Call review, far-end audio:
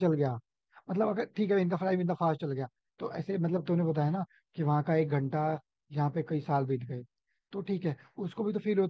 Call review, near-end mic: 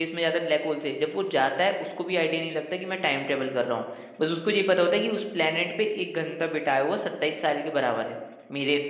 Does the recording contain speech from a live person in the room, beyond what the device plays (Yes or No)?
Yes